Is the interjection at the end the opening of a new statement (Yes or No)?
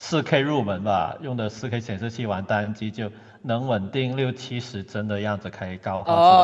Yes